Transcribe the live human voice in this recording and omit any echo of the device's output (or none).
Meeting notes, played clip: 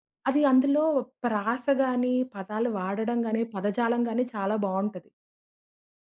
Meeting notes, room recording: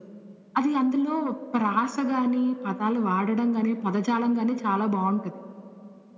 none